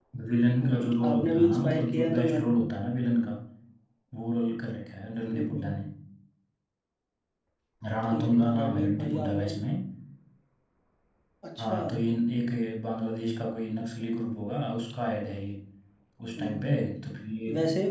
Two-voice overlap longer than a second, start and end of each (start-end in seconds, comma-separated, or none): 0.6-2.5, 8.1-9.5